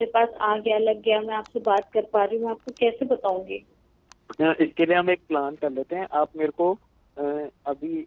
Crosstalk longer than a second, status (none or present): none